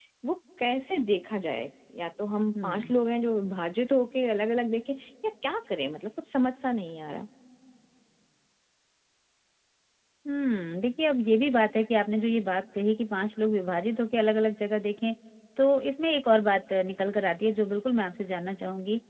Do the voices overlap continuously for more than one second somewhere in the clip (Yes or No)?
No